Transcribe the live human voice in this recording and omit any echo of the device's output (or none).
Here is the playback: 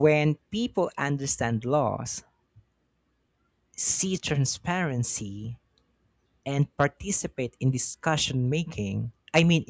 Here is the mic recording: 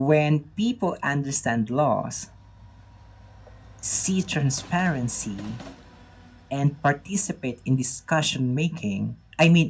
none